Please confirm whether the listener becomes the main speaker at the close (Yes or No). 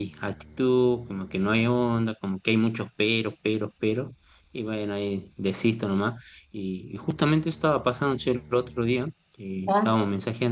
No